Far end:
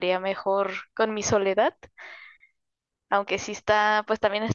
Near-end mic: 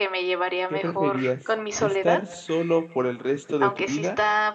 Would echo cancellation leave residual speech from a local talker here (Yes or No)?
Yes